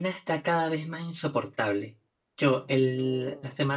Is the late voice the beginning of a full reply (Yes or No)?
No